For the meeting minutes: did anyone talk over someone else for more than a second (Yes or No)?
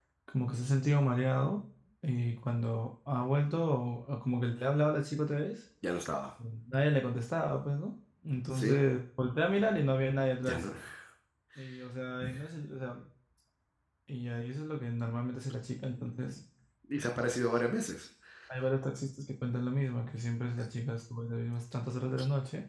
No